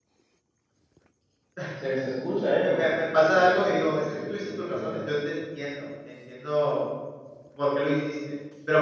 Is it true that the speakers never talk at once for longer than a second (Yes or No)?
No